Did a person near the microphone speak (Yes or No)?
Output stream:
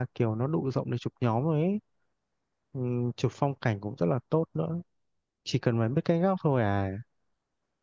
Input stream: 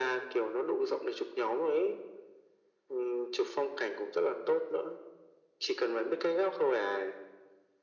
No